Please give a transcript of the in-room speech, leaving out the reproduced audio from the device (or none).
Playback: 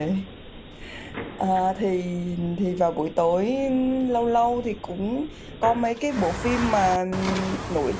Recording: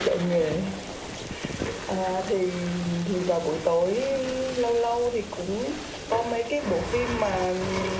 none